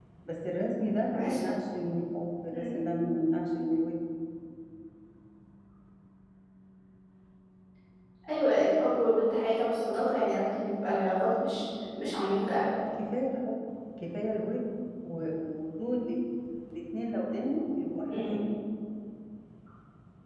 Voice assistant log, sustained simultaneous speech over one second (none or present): none